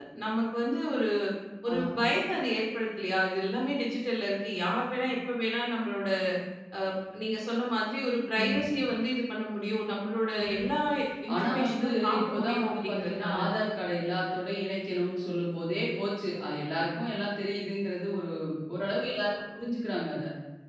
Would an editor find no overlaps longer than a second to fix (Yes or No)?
No